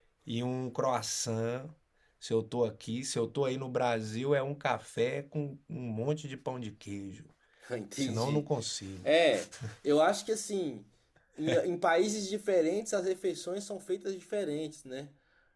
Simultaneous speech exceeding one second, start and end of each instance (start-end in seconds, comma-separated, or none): none